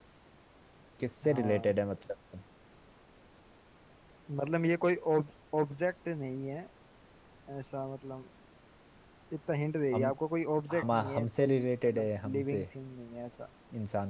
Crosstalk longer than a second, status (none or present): present